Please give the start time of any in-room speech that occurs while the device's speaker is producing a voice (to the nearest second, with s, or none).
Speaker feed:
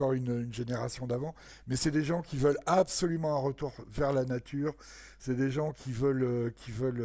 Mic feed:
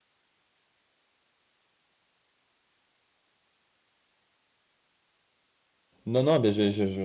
6 s